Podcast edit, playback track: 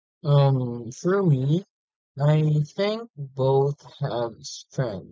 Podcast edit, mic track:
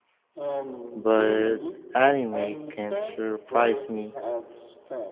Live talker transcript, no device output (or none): but anime can surprise me.